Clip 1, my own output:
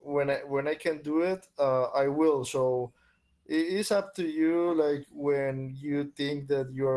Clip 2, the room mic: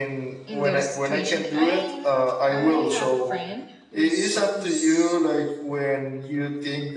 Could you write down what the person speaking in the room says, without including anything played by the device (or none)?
in their situation i i have a friend who's who's